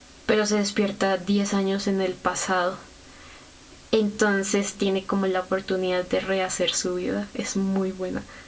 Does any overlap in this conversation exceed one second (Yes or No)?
No